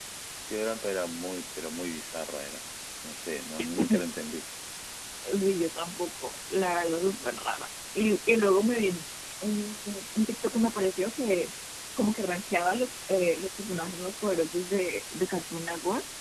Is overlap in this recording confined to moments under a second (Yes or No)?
Yes